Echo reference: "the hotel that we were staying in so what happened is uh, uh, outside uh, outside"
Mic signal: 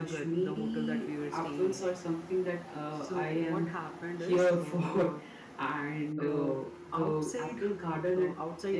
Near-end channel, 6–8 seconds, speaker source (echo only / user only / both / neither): both